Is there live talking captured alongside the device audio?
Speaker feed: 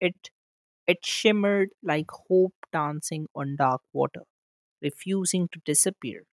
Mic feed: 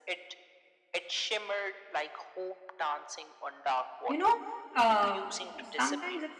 Yes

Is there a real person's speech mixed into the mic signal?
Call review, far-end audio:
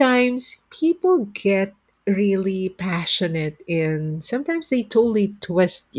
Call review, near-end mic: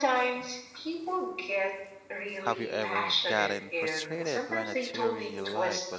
Yes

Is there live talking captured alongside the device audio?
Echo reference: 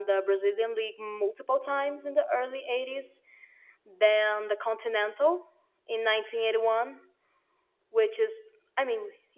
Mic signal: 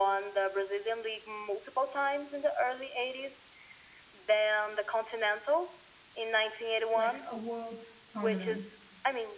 Yes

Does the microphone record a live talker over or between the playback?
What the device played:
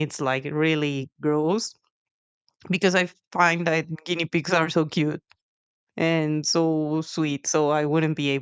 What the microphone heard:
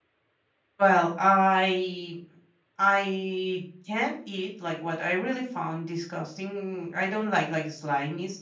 Yes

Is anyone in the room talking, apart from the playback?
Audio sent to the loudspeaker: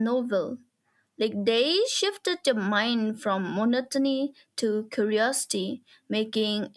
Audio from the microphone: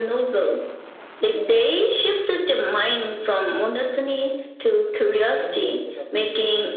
Yes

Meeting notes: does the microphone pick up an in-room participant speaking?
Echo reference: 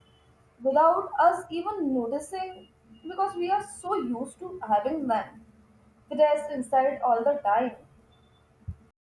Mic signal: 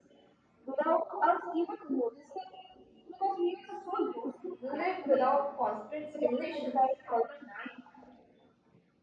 Yes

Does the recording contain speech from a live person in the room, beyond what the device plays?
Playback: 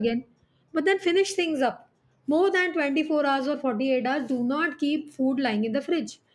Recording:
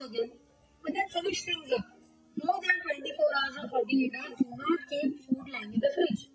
No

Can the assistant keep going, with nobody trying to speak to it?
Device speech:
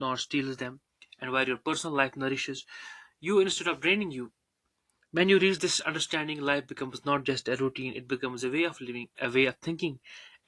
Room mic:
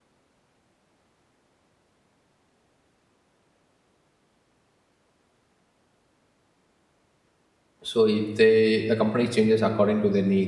No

